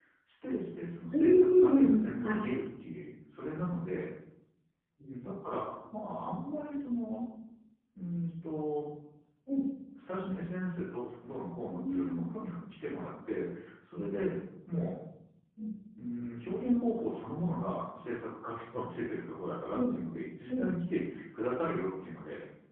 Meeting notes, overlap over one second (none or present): present